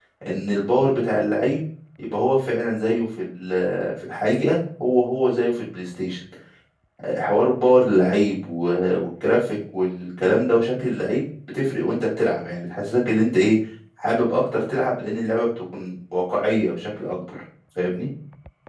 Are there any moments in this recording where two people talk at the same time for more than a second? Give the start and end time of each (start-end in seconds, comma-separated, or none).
none